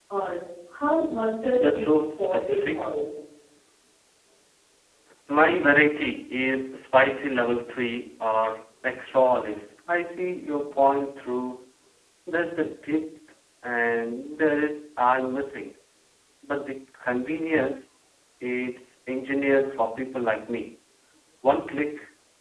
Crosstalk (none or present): present